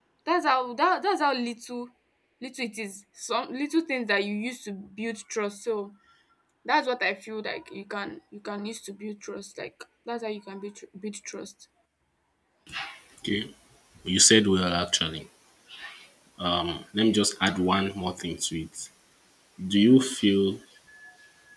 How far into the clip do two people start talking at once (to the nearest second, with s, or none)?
none